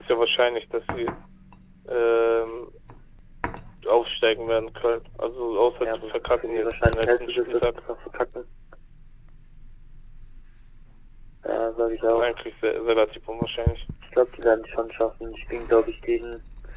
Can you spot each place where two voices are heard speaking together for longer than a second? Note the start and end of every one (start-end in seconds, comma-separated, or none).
5.8-7.7